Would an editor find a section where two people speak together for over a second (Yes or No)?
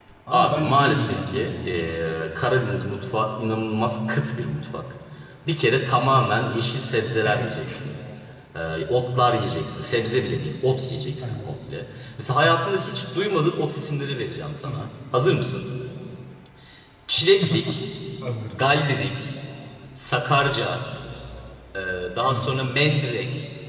Yes